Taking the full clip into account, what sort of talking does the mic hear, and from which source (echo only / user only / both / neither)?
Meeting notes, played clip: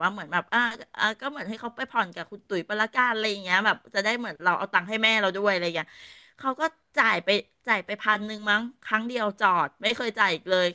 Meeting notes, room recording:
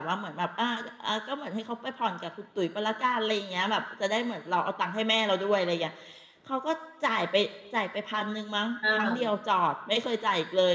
both